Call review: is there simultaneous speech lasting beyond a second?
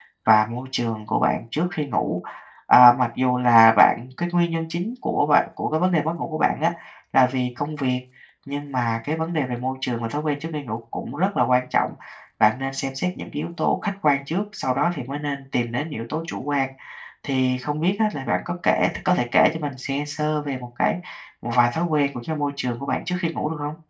No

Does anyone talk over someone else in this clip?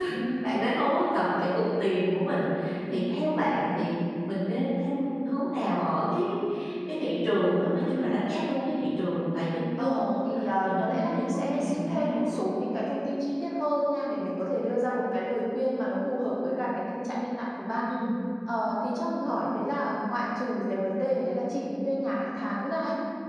Yes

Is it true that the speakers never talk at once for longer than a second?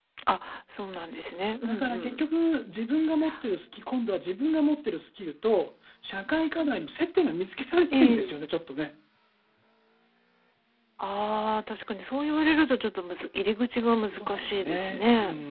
No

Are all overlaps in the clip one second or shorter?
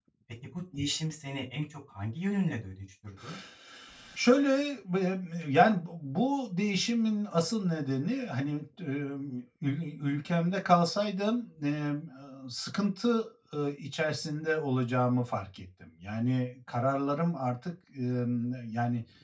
Yes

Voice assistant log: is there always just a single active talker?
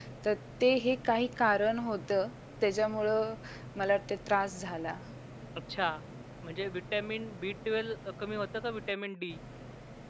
Yes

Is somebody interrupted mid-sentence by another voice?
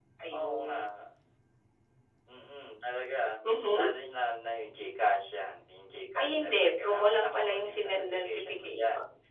Yes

